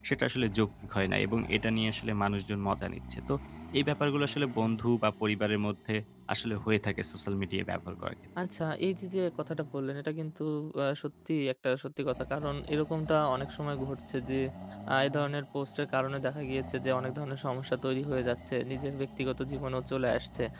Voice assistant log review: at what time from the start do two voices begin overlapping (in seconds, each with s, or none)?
none